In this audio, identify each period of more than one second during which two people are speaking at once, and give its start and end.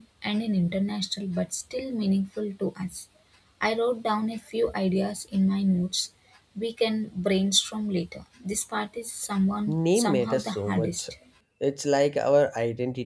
9.7-11.0

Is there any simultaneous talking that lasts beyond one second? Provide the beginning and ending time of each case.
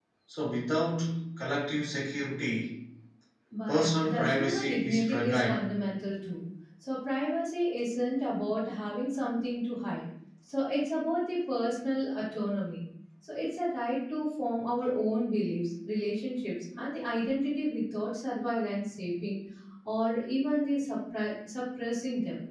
3.7-5.6

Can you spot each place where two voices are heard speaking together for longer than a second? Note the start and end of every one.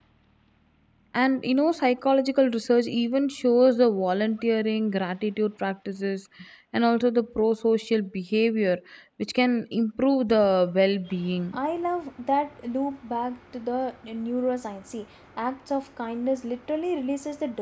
none

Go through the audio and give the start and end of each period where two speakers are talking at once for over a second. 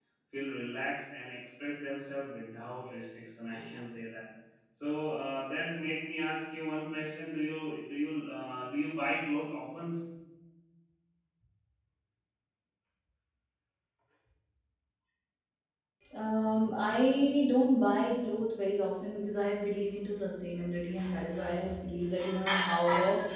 none

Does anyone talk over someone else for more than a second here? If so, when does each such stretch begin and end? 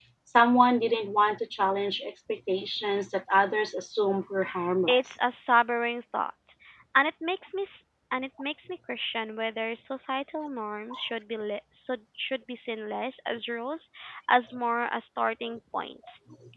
none

